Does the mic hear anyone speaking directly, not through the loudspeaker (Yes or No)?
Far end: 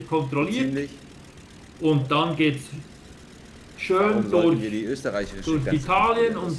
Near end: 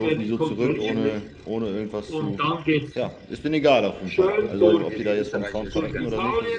Yes